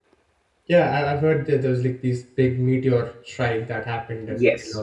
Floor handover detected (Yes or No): Yes